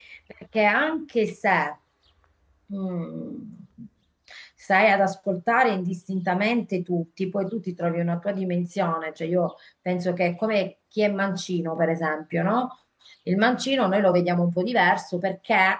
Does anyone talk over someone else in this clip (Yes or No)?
No